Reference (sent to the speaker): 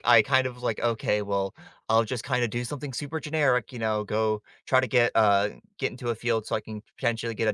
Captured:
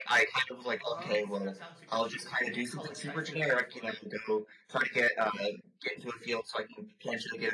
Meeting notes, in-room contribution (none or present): present